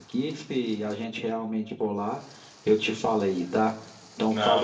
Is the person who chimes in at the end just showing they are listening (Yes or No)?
No